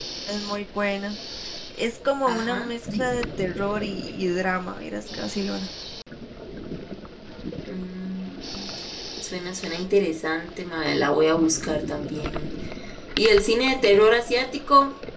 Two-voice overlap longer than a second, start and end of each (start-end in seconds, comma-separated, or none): none